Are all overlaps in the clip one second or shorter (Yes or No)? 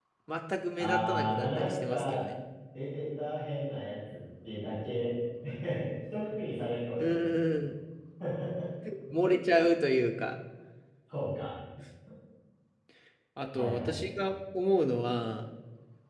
No